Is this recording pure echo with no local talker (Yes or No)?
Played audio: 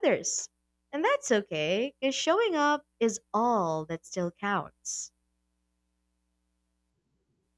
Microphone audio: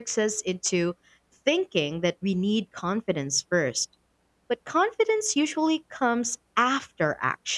No